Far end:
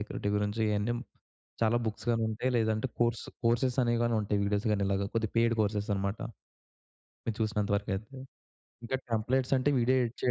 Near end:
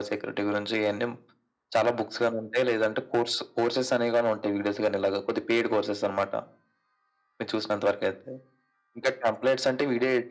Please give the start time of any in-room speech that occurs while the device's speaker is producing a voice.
none

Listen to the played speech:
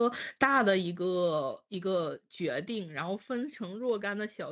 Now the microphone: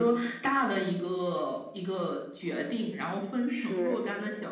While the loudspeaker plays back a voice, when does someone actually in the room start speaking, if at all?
3 s

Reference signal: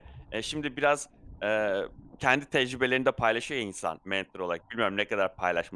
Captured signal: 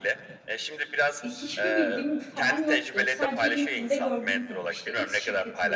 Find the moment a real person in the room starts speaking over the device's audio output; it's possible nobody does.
1 s

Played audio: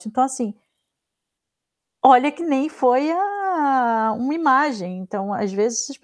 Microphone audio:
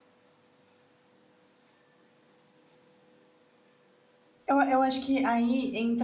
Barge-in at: 4 s

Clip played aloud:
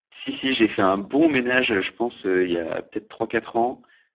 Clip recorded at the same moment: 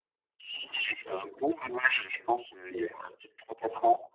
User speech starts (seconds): none

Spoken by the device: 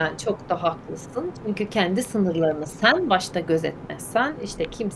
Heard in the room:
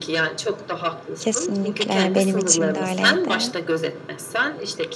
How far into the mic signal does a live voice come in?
1 s

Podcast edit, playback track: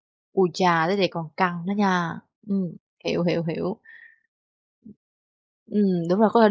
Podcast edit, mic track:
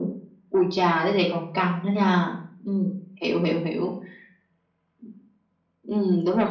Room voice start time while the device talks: none

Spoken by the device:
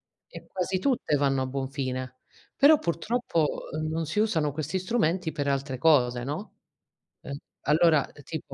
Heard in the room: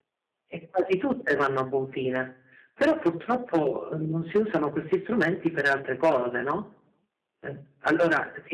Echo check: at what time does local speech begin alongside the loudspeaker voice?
none

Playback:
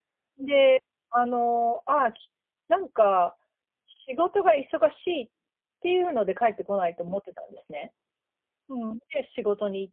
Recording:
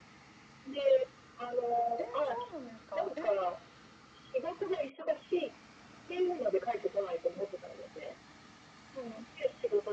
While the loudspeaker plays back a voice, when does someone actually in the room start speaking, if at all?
2 s

